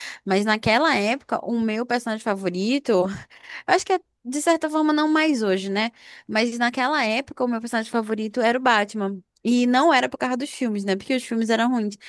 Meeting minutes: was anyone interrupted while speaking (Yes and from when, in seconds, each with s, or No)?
No